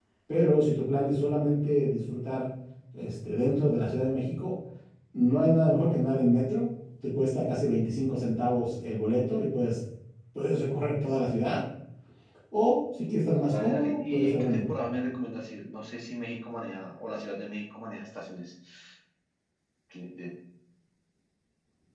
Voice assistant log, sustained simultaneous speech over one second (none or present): present